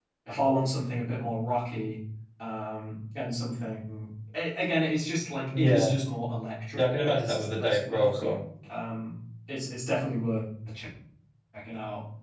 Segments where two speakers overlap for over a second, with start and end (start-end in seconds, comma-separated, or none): 6.8-8.3